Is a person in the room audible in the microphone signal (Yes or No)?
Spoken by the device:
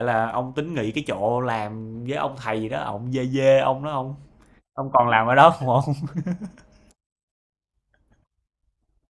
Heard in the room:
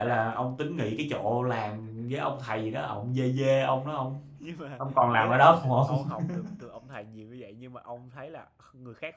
Yes